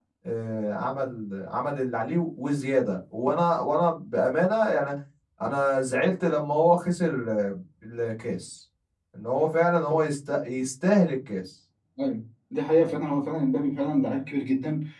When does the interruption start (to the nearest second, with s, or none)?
none